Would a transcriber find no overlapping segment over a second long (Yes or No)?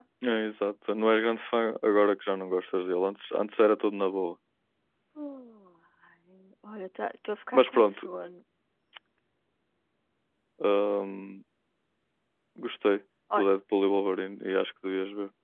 Yes